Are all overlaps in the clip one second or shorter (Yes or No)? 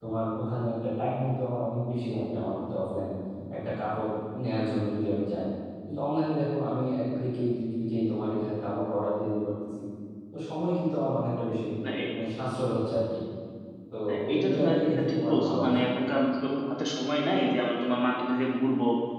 No